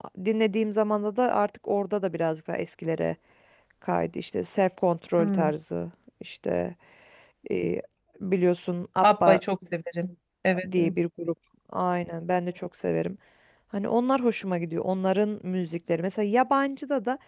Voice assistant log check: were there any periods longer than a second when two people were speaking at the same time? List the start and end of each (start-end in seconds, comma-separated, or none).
none